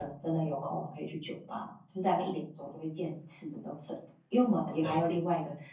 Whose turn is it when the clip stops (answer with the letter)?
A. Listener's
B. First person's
B